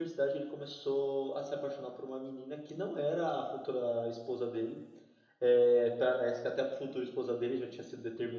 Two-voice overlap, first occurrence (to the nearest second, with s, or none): none